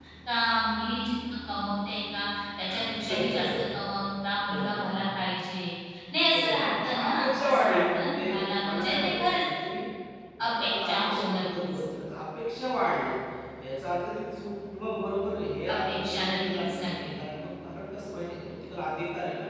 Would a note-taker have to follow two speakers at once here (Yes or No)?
Yes